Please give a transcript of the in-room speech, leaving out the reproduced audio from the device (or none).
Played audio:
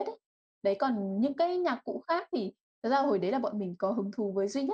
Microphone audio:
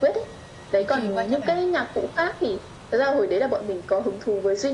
Được truyền qua cho bạn,